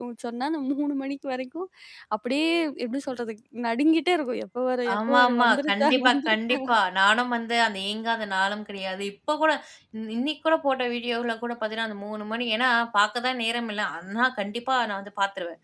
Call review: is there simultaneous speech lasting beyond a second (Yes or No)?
Yes